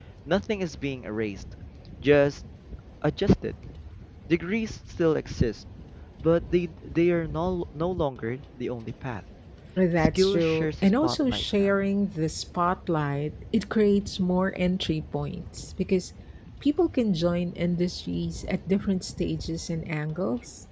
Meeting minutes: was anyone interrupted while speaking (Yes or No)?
Yes